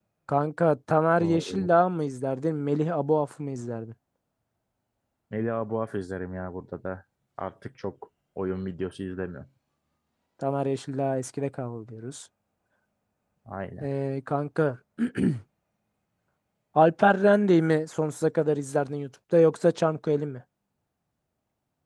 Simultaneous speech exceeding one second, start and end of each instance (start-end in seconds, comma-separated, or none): none